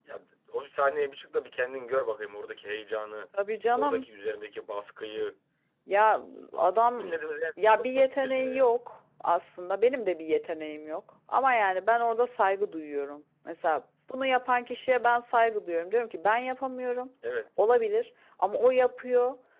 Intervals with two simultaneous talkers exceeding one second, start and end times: 7.6-8.8

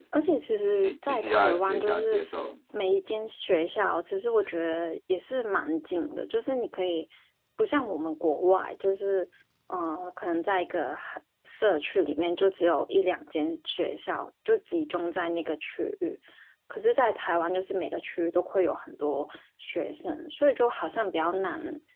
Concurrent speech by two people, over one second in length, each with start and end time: 0.6-2.2

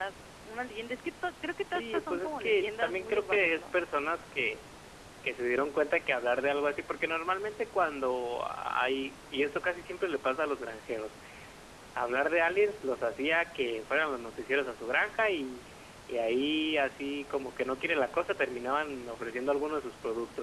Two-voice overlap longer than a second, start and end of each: 1.7-3.6

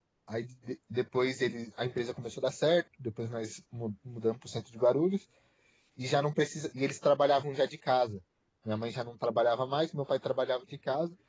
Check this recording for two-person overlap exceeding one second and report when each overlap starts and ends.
none

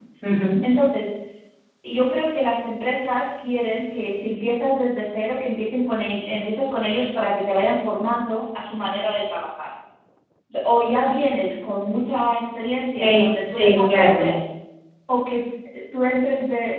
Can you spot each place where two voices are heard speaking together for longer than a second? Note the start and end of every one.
13.0-14.3

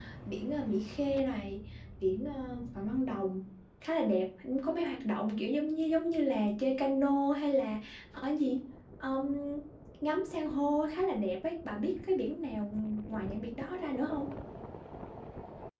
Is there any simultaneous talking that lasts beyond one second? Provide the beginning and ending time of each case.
none

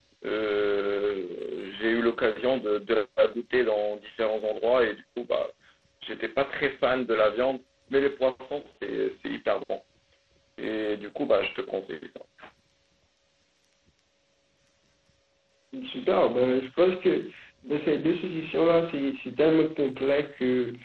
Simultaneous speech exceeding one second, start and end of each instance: none

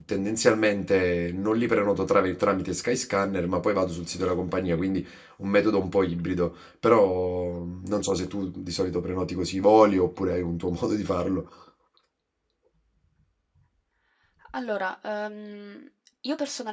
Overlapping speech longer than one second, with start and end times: none

